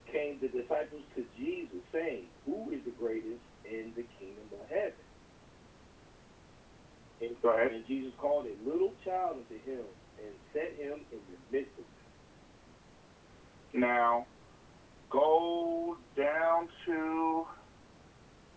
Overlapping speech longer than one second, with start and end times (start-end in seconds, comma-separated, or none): none